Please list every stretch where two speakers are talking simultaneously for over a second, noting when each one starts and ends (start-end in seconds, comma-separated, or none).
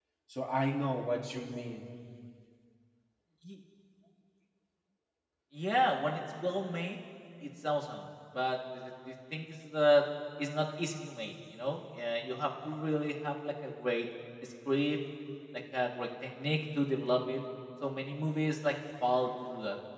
none